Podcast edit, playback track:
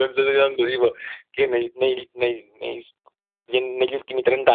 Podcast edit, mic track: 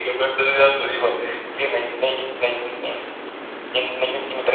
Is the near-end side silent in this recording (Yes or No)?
Yes